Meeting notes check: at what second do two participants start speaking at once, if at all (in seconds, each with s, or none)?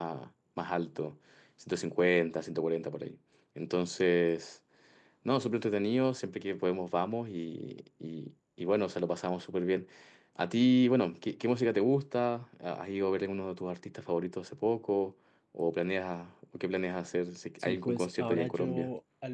17.6 s